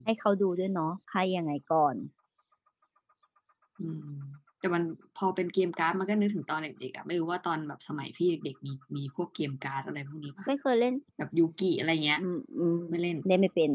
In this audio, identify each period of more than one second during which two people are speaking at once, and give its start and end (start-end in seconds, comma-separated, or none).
none